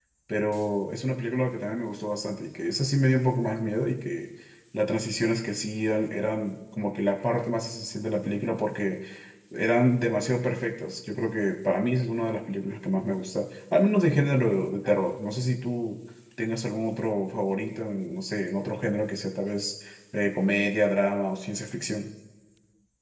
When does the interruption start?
none

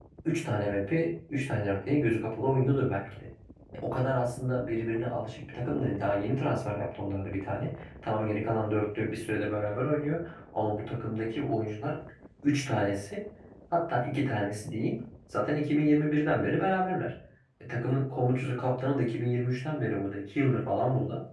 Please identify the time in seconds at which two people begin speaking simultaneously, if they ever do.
none

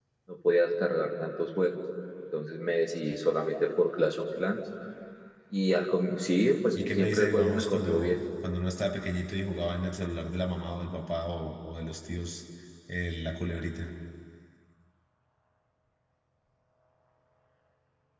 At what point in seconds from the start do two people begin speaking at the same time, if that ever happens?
7 s

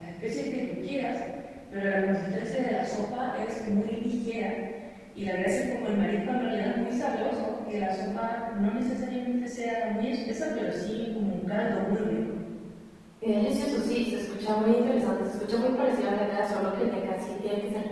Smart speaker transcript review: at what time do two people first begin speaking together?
none

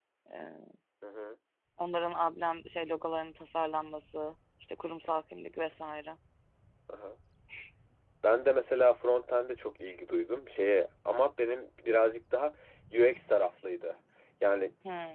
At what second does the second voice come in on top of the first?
none

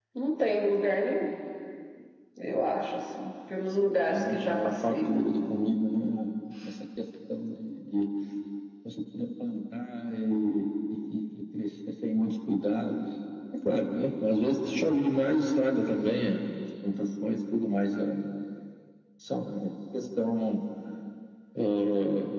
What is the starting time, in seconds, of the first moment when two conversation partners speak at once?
4 s

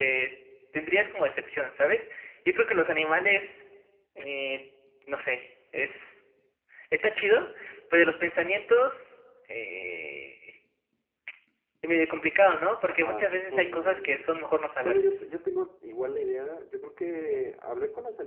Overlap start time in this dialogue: 13 s

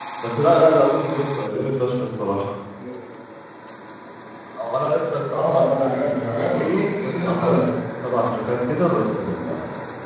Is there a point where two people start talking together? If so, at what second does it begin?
5 s

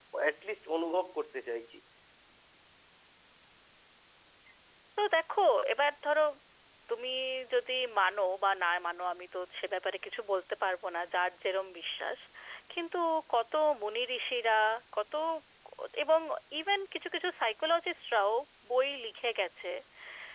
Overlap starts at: none

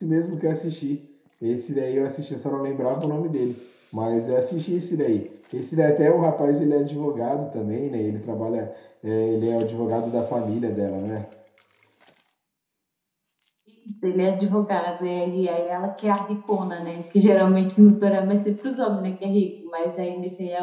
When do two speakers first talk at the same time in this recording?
none

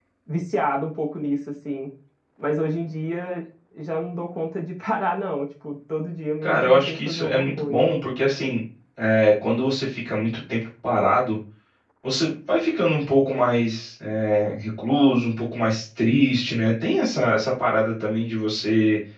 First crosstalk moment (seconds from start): 6 s

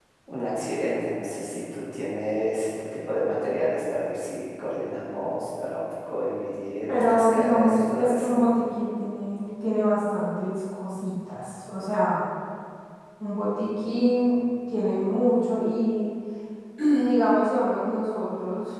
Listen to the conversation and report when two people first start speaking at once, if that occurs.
7 s

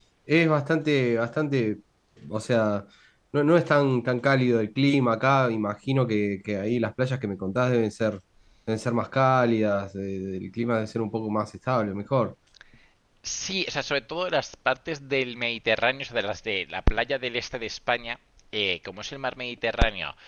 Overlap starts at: none

